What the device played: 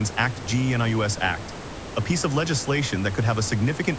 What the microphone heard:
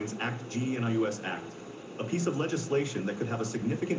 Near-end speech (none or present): none